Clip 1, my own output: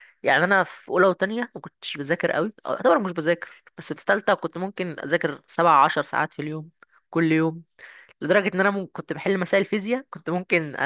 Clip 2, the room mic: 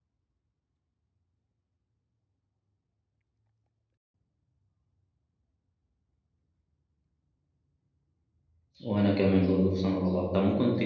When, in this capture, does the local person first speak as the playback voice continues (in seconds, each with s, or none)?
8.8 s